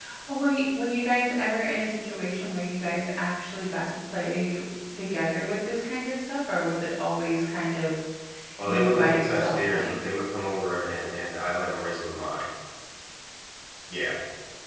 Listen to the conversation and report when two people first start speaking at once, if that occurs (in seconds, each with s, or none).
8.6 s